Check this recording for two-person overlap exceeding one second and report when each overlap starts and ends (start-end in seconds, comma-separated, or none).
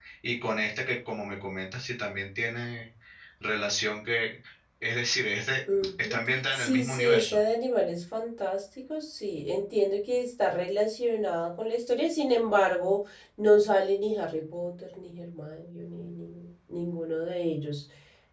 6.0-7.4